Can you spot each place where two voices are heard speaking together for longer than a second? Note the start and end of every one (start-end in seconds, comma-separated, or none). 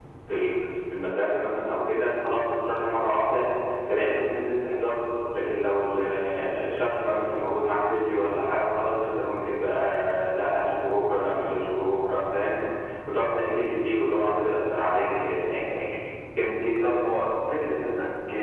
none